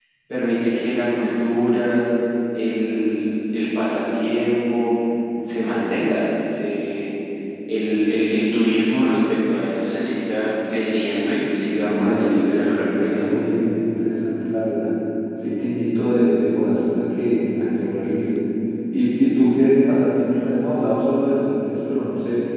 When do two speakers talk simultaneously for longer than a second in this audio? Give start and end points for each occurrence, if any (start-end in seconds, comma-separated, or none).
11.8-13.3